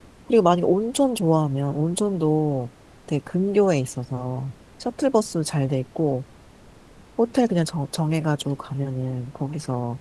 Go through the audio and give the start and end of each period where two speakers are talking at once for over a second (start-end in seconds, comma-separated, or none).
none